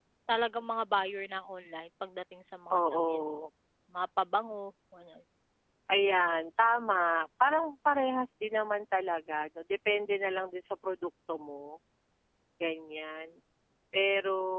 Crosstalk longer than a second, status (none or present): none